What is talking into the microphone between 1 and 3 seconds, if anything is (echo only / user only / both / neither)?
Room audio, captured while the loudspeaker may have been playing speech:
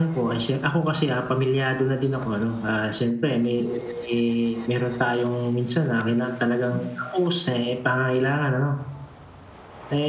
echo only